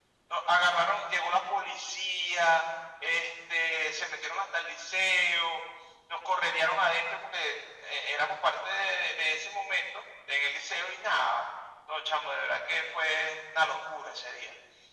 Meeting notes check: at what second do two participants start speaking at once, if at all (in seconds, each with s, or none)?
none